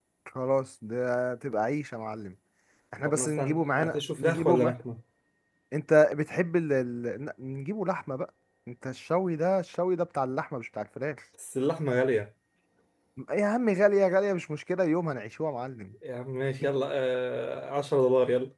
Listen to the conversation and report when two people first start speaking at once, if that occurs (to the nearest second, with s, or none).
3 s